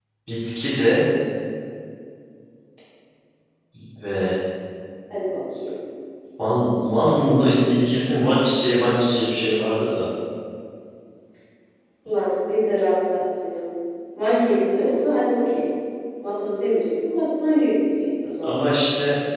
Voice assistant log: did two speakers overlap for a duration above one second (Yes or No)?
No